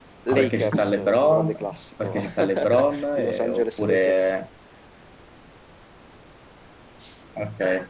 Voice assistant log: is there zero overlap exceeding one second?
No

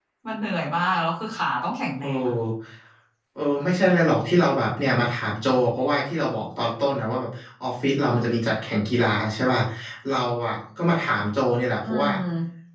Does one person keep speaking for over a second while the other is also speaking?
No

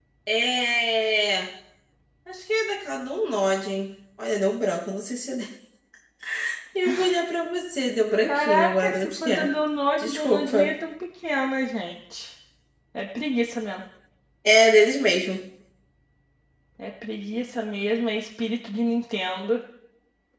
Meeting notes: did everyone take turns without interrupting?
No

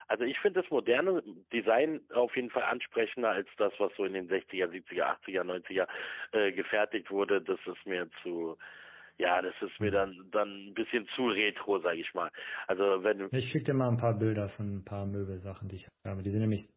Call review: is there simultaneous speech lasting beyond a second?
No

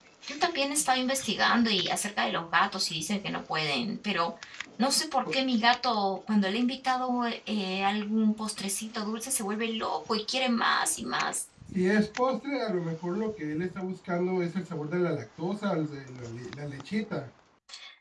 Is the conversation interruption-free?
Yes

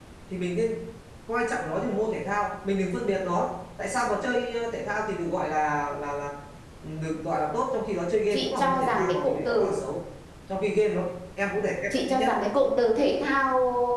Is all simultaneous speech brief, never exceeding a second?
No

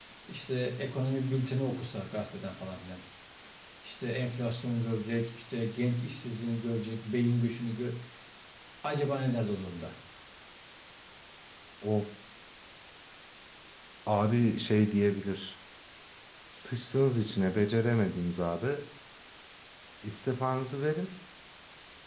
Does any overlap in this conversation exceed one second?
No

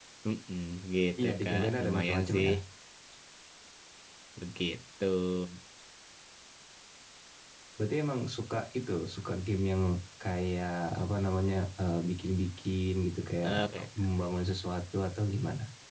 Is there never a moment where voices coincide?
No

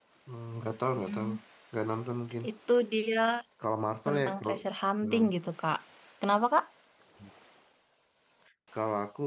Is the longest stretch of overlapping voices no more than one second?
Yes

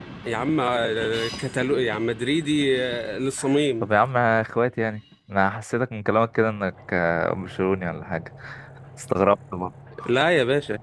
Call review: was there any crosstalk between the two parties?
No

